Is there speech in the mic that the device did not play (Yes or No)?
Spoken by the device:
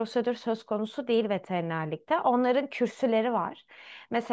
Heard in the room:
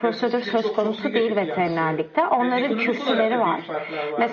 Yes